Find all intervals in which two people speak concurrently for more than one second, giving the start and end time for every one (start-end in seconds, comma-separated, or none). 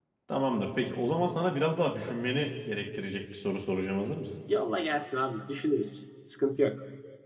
none